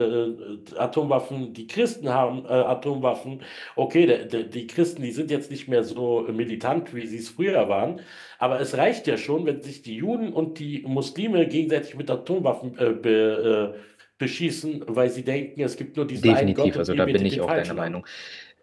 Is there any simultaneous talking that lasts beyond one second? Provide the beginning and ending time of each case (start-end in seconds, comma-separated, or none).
16.1-17.9